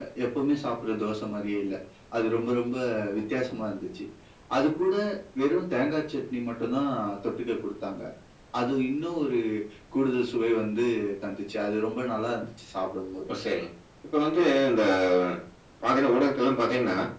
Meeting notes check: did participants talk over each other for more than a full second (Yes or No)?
No